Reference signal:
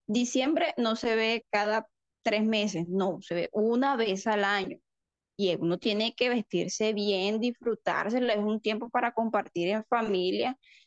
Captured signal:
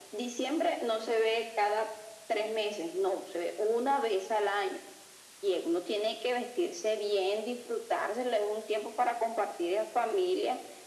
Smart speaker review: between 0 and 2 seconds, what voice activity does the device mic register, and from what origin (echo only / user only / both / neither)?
echo only